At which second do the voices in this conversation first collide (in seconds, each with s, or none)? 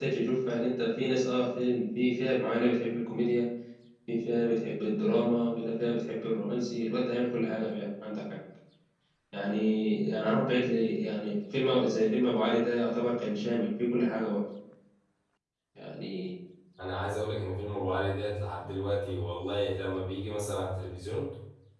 none